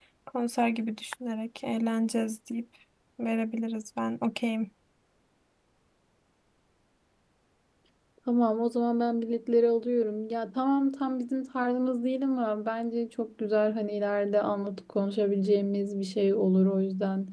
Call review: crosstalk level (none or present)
none